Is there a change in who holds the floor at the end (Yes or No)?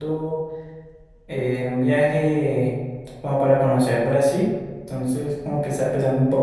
No